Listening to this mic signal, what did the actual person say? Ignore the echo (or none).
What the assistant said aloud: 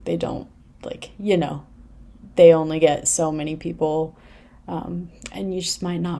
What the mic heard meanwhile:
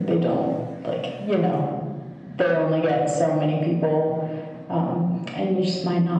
none